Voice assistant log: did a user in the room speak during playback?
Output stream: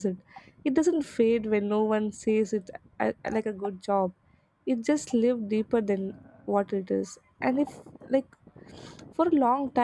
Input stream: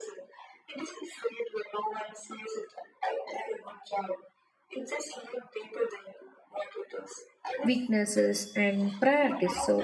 Yes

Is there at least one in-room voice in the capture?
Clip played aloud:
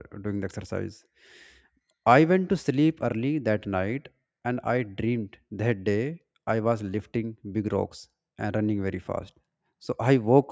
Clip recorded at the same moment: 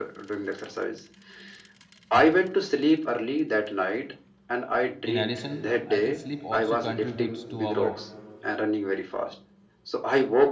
Yes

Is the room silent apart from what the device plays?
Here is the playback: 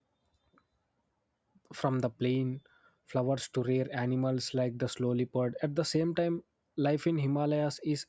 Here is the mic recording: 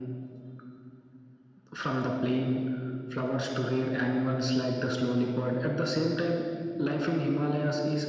Yes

